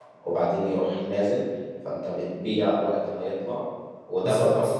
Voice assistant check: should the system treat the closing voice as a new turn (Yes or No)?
No